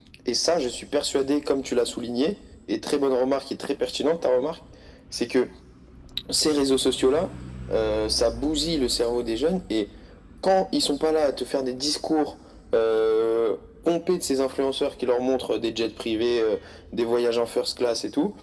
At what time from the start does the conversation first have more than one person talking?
none

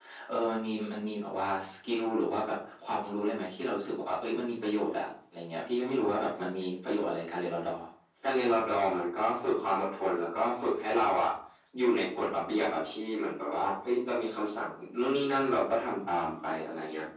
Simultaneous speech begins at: none

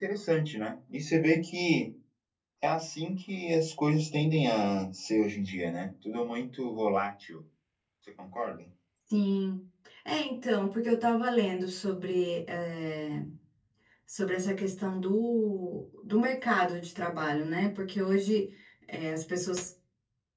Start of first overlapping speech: none

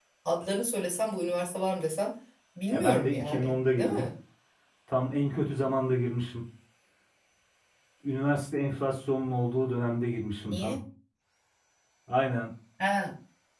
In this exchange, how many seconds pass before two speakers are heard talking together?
2.7 s

